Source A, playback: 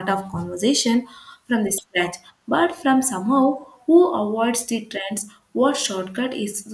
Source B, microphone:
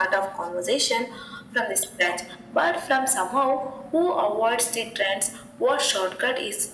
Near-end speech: none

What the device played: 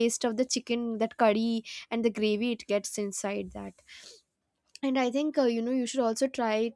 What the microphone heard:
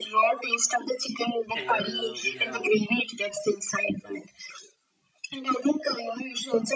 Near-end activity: present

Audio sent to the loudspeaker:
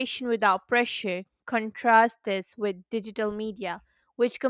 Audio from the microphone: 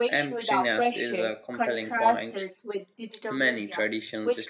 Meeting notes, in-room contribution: present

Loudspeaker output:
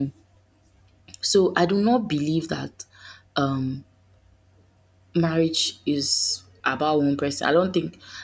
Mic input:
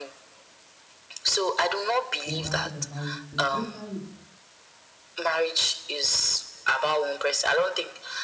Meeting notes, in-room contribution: present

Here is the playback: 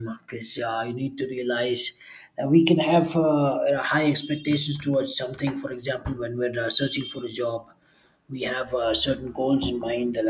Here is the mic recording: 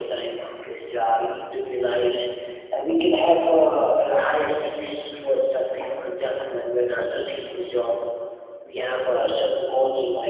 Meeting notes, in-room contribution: none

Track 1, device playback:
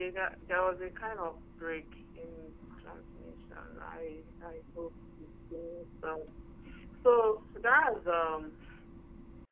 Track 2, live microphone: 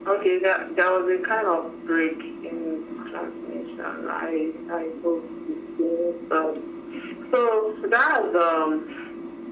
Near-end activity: none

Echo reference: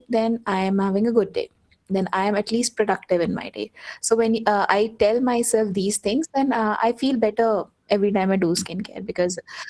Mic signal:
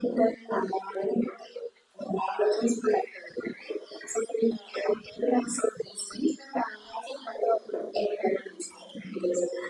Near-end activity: none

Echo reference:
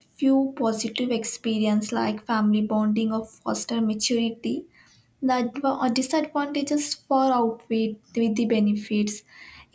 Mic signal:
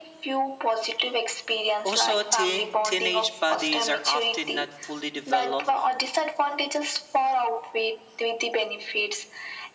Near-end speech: present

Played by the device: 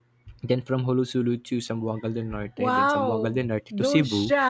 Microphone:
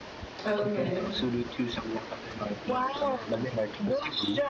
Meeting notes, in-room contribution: present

